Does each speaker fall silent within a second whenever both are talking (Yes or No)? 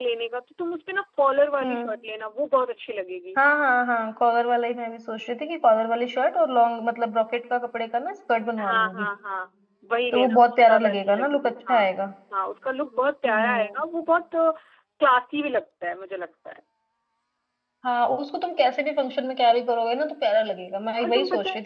No